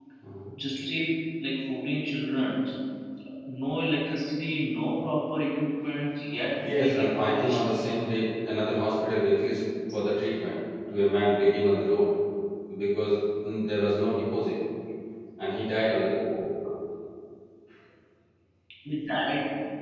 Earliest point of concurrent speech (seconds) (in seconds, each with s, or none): 6.6 s